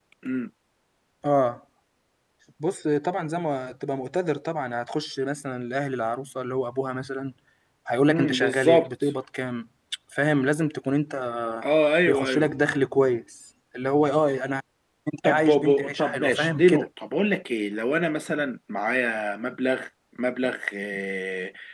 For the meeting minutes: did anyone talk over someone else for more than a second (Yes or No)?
Yes